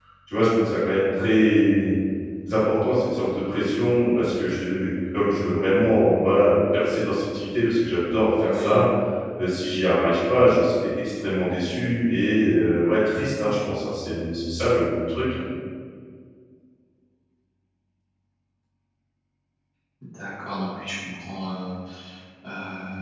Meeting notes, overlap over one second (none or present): none